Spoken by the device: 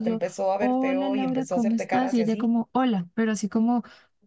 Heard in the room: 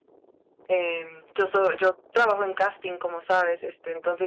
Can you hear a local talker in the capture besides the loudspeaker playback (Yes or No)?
Yes